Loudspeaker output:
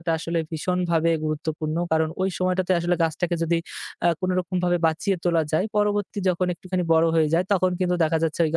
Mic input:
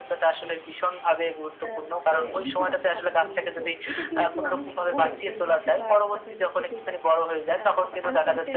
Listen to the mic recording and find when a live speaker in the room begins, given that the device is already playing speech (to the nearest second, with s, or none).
2 s